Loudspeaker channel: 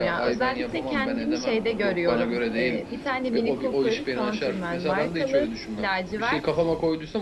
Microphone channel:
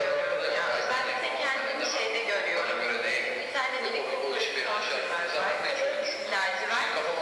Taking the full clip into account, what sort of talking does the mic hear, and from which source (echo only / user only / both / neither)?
echo only